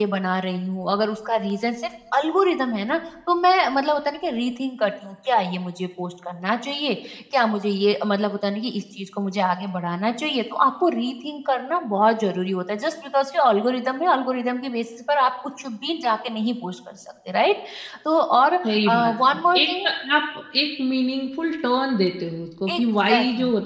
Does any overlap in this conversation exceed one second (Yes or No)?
Yes